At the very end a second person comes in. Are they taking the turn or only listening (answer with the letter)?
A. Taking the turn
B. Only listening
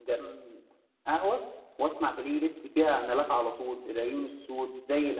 B